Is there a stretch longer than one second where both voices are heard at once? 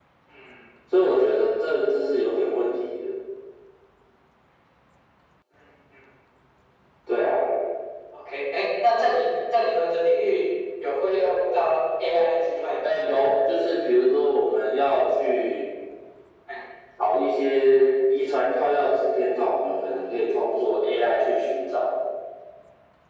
No

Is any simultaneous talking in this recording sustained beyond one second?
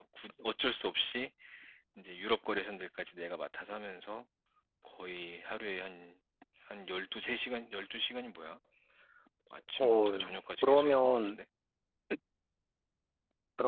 Yes, from 9.8 s

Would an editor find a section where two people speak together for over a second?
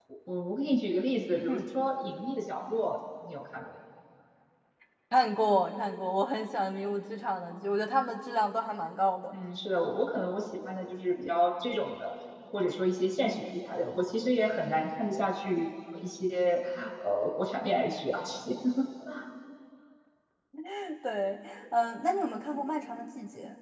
No

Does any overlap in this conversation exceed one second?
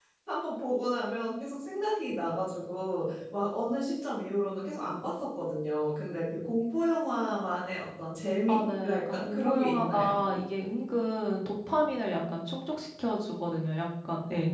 Yes, from 8.5 s

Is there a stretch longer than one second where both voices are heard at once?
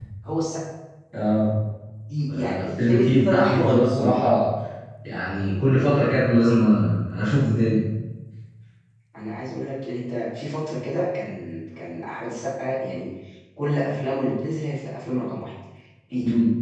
Yes, from 2.3 s

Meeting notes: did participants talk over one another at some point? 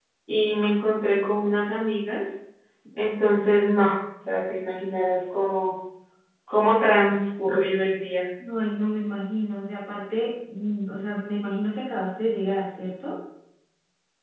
No

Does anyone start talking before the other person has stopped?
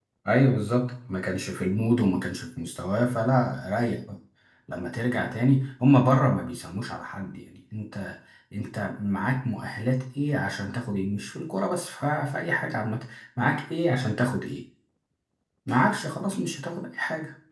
No

